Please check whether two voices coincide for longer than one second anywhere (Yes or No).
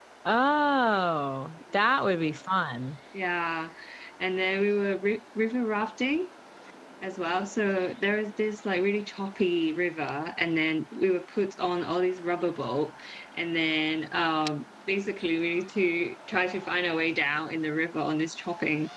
No